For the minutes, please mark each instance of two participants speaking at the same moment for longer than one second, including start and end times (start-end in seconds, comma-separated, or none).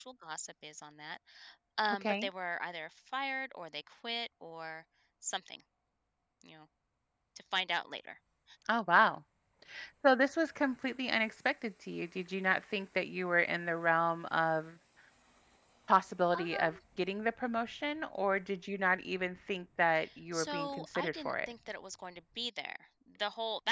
20.3-21.5